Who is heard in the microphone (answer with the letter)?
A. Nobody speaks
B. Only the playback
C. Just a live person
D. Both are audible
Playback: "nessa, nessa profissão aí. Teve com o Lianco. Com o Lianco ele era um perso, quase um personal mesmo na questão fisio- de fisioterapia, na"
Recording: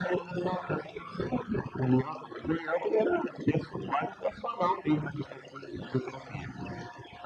B